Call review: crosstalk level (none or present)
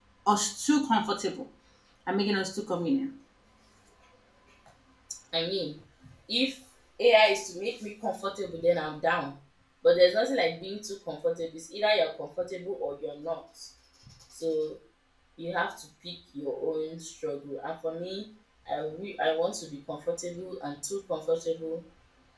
none